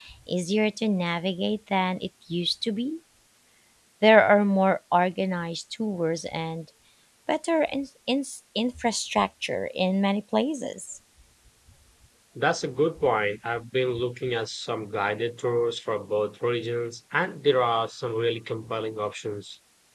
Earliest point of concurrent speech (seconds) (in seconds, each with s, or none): none